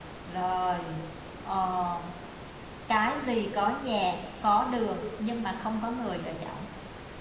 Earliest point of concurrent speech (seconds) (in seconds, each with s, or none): none